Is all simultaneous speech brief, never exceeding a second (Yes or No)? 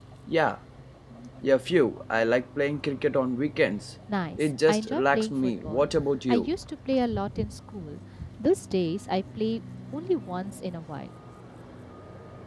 No